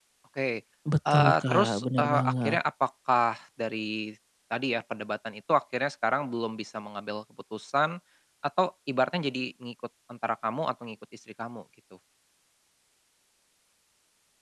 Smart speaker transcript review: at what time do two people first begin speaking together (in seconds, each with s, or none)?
1.1 s